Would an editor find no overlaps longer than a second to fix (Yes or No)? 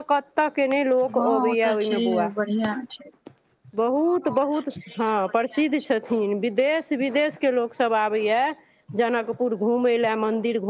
No